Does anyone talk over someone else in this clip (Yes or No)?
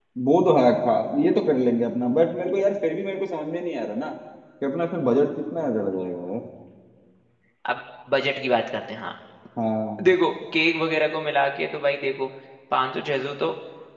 No